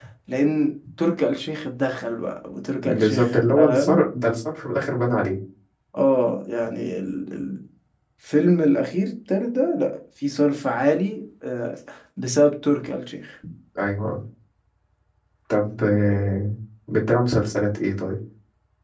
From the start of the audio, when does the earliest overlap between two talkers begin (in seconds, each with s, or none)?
2.8 s